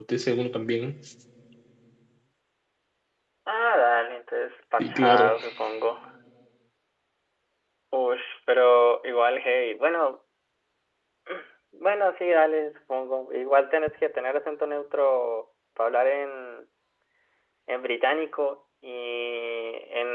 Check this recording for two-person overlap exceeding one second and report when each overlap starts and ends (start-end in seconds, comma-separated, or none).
none